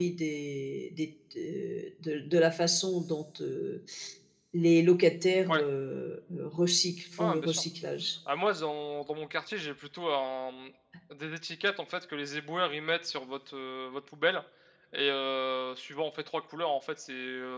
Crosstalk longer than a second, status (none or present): none